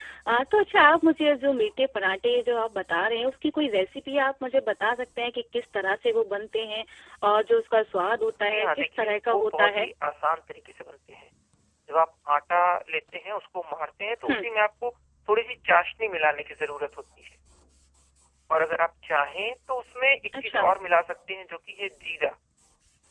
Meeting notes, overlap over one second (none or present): present